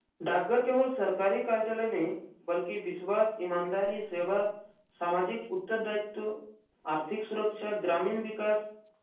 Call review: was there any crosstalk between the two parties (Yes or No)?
No